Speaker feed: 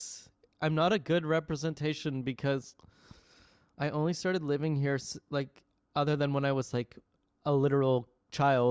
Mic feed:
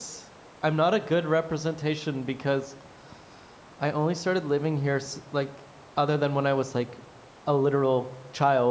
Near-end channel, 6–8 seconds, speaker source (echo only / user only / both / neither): echo only